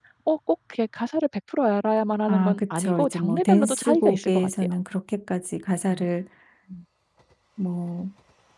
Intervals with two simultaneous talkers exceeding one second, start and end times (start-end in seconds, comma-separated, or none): 2.3-4.7